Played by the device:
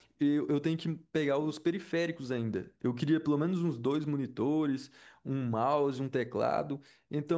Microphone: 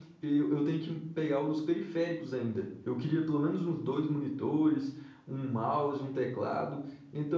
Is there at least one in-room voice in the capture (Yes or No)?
No